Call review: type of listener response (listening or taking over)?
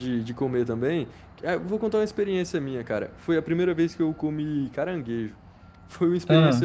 listening